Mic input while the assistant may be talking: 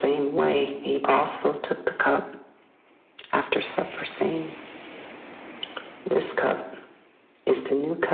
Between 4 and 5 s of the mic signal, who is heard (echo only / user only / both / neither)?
echo only